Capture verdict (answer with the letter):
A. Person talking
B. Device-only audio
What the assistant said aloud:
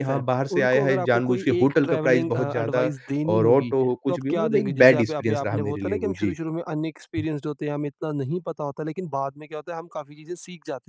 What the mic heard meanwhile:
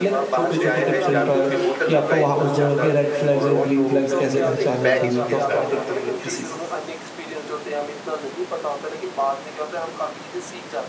A